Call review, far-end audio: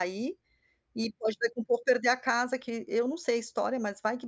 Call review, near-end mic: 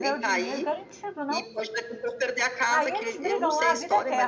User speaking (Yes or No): Yes